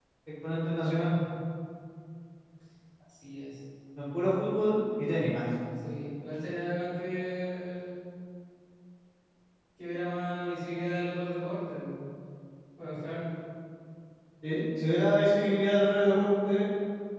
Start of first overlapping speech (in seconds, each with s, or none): none